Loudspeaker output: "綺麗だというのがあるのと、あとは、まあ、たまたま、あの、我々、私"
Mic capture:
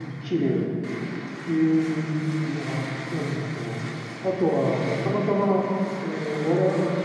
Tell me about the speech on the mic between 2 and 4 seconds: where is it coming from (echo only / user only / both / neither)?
echo only